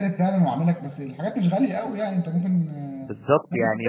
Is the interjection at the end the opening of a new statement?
Yes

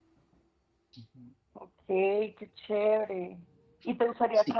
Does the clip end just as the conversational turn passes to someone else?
No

